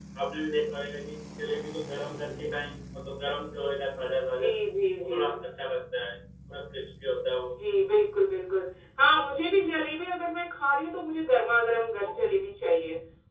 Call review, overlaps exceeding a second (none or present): none